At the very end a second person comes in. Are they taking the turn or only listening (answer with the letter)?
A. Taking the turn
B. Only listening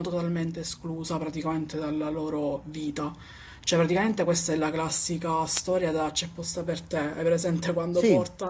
B